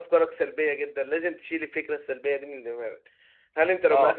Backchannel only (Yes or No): Yes